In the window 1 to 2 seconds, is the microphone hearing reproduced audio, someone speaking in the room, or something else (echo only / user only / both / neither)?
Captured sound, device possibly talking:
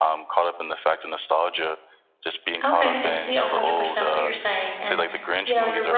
echo only